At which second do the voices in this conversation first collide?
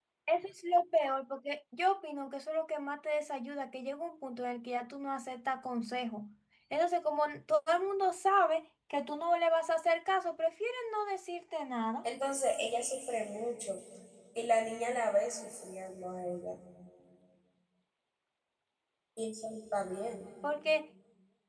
none

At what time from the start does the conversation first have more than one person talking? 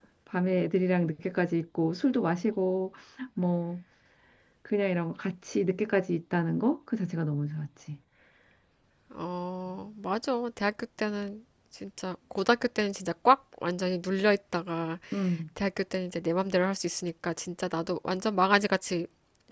none

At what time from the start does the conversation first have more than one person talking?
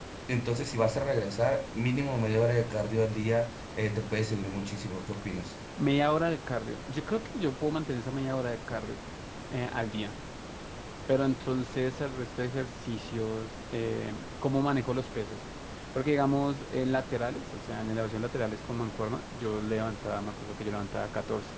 none

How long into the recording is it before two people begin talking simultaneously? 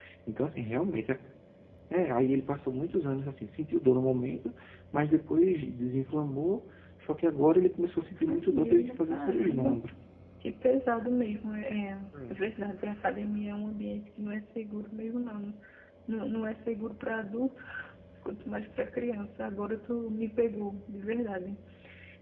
8.3 s

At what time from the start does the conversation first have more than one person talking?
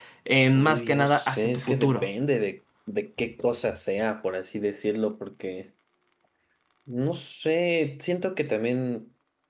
0.6 s

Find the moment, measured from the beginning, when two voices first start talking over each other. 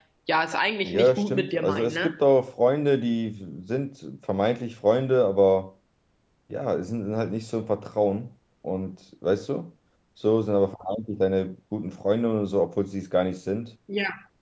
0.8 s

